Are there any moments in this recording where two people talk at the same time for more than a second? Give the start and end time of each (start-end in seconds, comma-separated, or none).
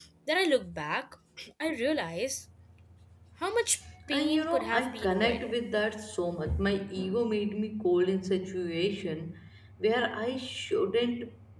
4.1-5.5